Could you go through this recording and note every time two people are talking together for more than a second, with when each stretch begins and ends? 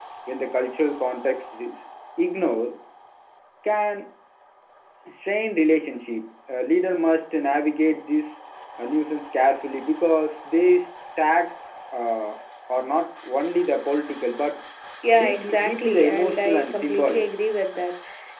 15.2-17.2

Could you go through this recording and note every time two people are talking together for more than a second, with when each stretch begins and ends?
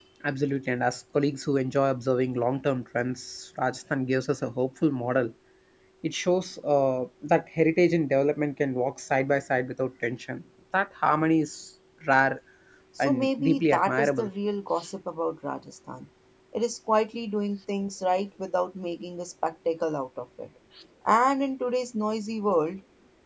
13.0-14.3

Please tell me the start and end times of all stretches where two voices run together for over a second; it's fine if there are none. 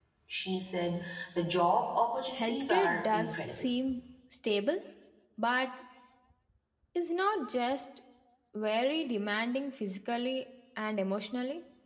2.4-3.6

